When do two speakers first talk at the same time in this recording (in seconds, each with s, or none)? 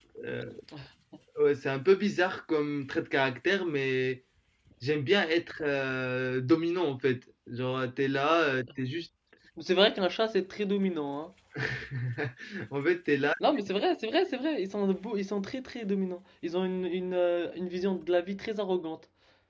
none